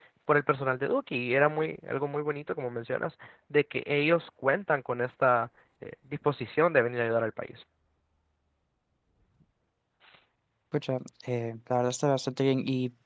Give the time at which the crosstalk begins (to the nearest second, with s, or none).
none